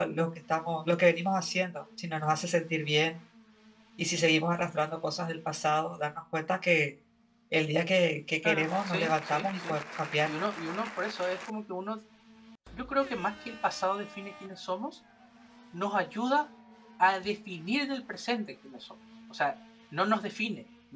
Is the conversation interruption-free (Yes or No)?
No